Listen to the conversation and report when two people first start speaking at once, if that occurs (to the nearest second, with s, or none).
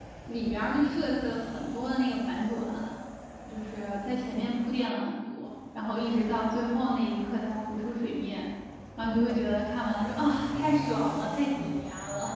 none